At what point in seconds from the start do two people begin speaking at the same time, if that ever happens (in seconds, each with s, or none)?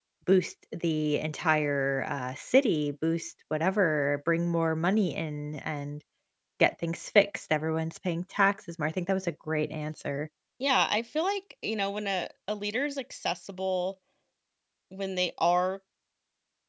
none